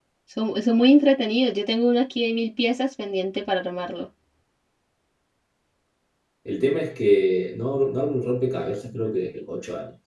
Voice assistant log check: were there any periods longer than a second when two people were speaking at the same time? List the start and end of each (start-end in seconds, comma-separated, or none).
none